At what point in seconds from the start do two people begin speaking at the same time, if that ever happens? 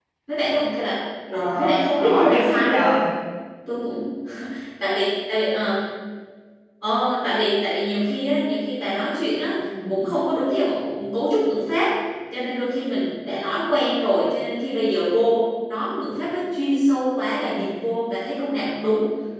1.3 s

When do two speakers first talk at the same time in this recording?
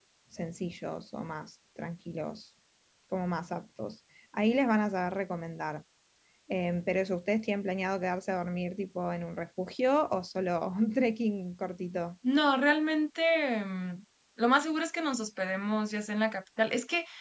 none

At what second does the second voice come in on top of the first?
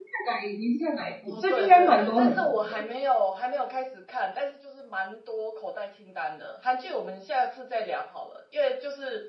1.3 s

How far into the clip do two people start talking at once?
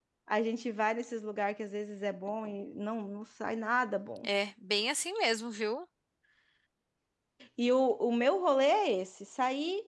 none

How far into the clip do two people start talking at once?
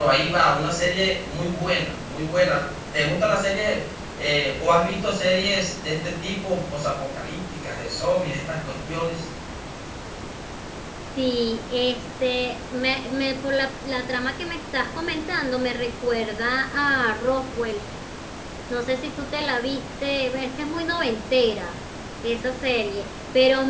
none

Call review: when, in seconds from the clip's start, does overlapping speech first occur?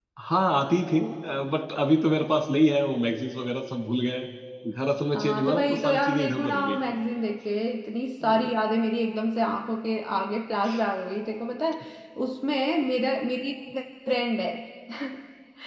5.2 s

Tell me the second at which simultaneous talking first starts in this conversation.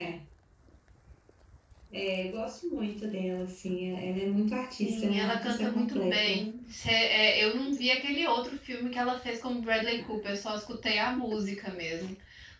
4.8 s

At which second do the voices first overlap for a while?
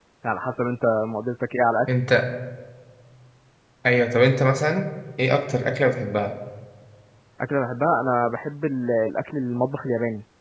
none

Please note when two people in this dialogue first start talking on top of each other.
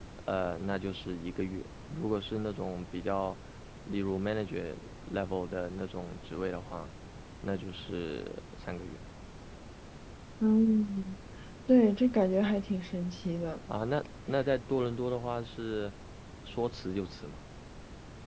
none

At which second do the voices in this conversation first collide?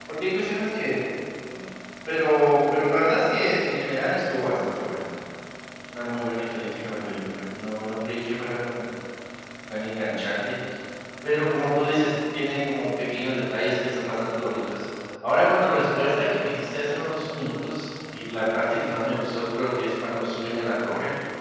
none

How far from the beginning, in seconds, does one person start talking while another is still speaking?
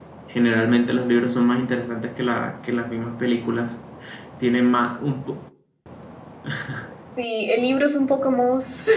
none

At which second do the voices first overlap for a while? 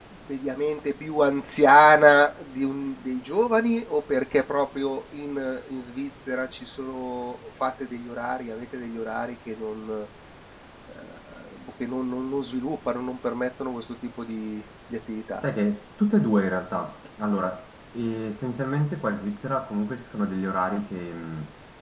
none

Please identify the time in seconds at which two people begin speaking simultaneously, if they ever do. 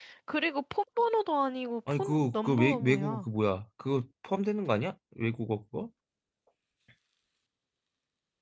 1.9 s

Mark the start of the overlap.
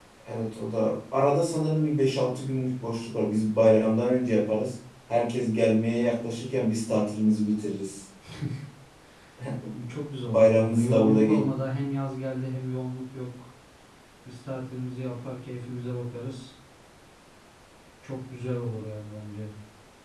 10.2 s

